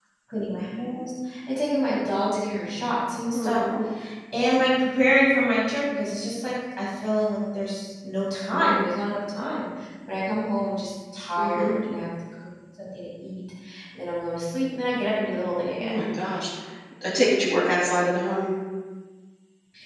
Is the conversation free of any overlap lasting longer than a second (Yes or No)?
Yes